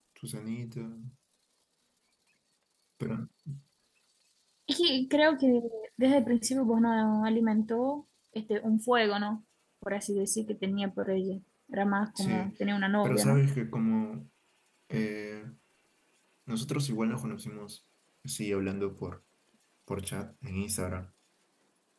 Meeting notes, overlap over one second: none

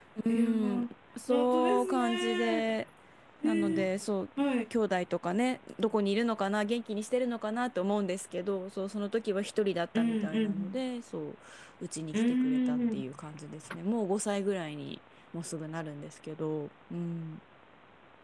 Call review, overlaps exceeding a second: present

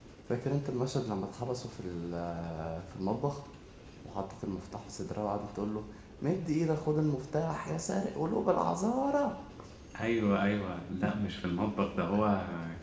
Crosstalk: none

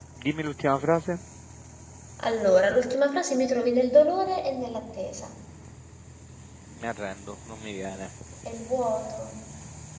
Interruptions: none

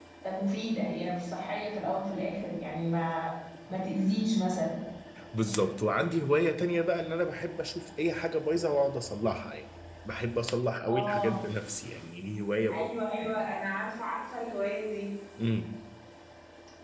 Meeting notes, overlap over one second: none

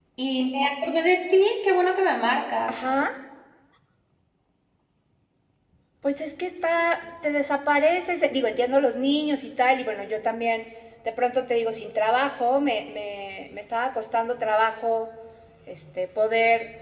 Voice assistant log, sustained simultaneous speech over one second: none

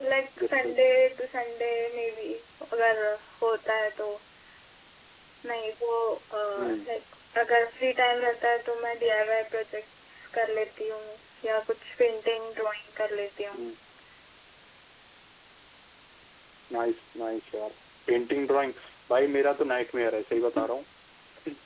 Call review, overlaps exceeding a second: none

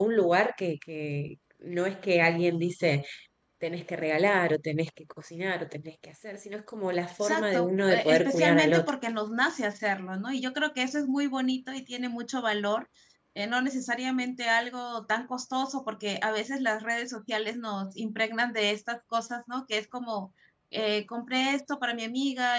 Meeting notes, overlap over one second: present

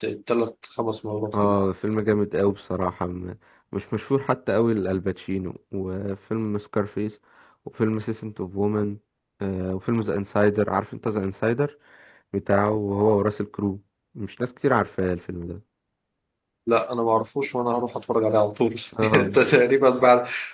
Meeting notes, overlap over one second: none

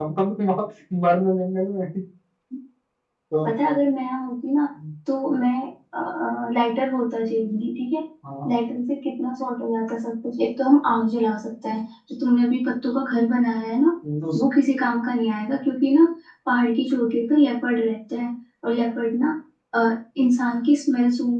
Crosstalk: none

